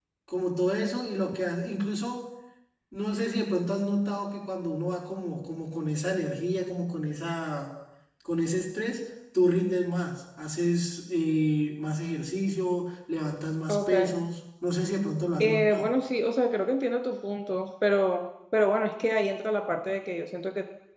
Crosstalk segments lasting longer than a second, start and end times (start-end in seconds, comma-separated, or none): none